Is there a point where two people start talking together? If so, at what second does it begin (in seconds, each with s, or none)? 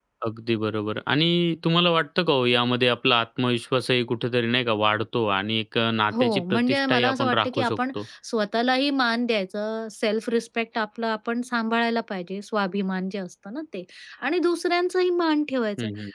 6.1 s